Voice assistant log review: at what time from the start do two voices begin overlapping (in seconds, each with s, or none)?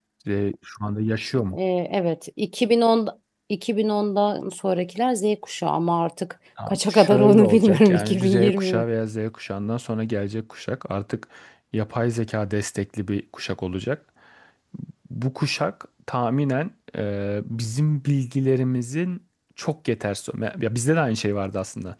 6.6 s